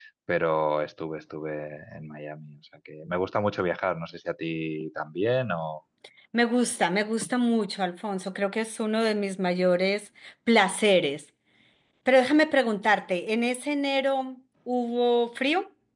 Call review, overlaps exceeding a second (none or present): none